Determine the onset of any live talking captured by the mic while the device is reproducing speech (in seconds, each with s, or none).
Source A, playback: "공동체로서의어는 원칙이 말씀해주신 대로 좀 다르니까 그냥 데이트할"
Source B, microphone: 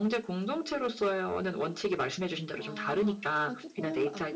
2.5 s